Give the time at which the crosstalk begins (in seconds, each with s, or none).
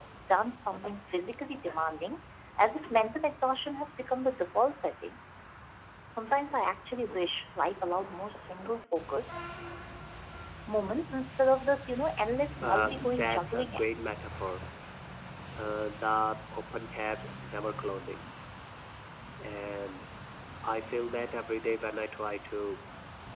12.6 s